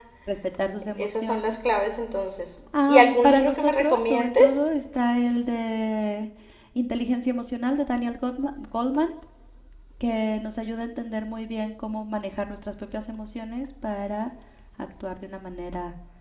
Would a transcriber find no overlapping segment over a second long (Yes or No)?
No